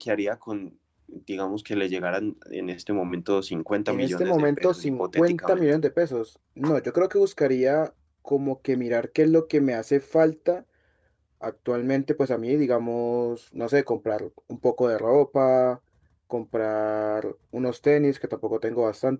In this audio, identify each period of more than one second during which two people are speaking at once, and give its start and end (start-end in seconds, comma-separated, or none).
3.9-5.7